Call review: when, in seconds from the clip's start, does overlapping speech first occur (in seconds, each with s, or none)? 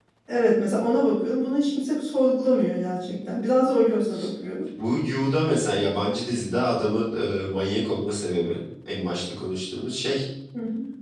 none